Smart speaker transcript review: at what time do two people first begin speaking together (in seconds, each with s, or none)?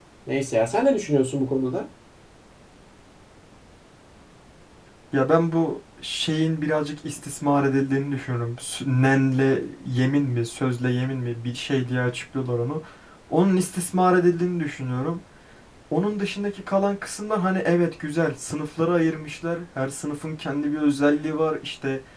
none